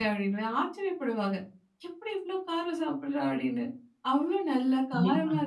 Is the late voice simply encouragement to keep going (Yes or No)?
Yes